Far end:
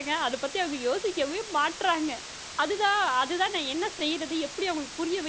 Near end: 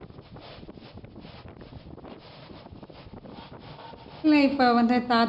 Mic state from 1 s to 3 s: neither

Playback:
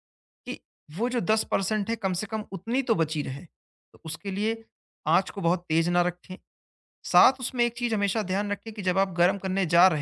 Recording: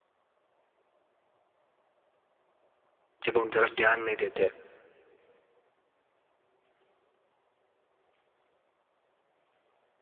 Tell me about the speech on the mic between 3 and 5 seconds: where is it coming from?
user only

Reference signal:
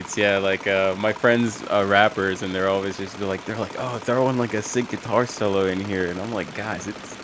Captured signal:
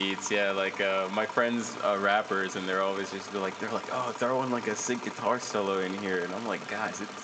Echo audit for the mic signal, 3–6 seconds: echo only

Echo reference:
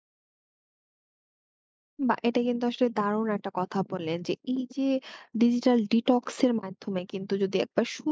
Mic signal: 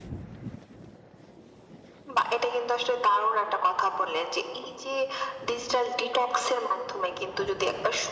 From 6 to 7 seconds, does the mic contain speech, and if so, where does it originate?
echo only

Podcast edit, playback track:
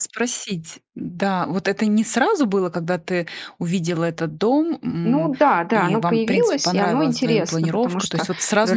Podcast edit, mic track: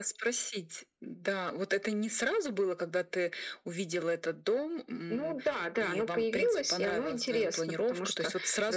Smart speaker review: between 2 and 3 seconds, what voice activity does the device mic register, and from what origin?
echo only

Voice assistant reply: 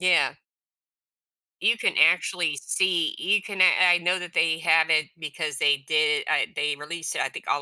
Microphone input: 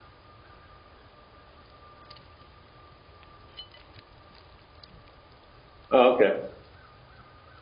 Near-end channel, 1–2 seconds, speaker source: neither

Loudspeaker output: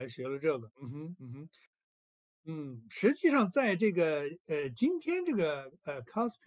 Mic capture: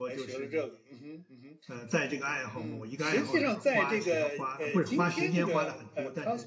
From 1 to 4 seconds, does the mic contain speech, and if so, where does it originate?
both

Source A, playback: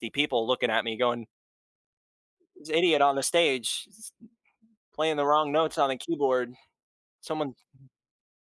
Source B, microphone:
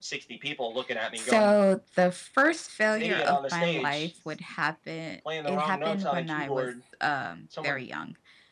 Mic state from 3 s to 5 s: both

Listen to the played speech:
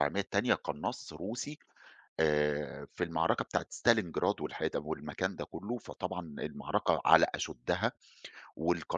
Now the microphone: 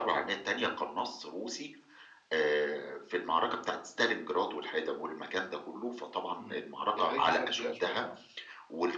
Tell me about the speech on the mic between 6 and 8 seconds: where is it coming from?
both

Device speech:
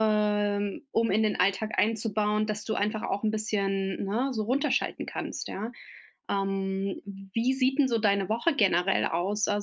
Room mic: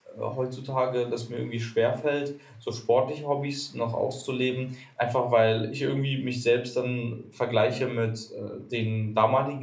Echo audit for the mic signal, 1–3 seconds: user only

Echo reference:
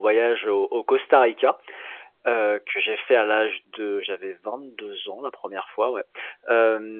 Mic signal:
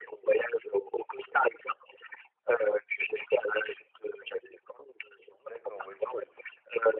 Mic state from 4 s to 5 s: echo only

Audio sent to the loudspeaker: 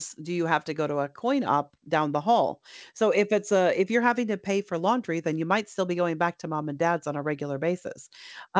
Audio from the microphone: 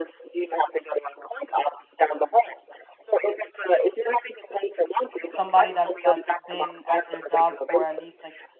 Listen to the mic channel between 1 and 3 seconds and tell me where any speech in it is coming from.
echo only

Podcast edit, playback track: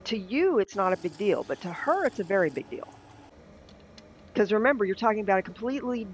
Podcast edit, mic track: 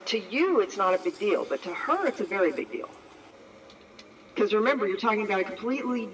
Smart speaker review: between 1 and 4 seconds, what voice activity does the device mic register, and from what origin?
echo only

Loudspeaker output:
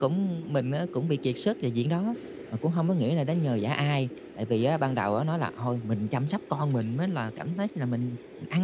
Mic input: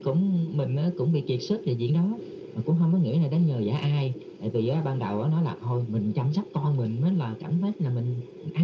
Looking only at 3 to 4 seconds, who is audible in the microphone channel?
echo only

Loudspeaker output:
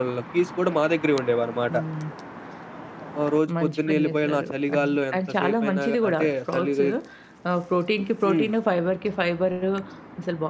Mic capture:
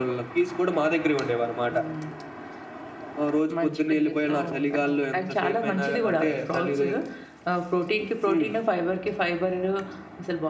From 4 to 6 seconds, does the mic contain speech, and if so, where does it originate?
both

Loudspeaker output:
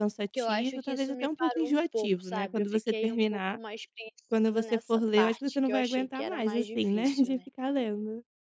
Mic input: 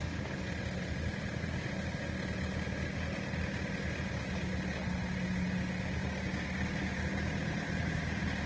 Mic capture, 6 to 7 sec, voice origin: neither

